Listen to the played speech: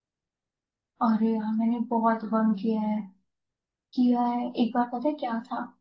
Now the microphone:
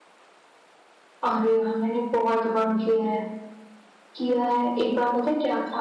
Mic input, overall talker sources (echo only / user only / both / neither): echo only